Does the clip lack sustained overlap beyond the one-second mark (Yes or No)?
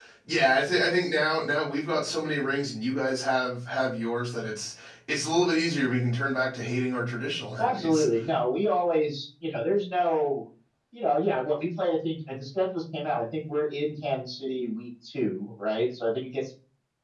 Yes